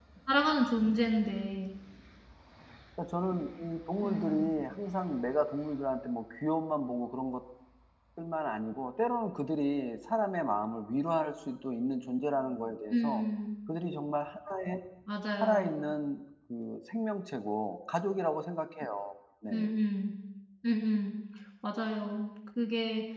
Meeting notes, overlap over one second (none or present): none